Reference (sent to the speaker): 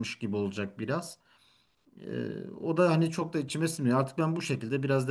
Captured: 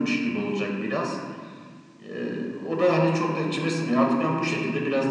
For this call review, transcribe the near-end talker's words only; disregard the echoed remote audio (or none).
none